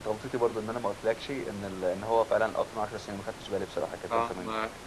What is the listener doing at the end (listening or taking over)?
taking over